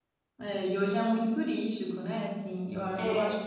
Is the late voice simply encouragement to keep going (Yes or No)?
Yes